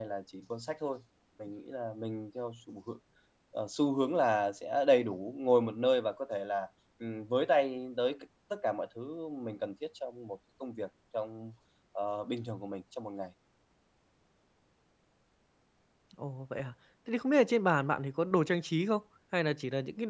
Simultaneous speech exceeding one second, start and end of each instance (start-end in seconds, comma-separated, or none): none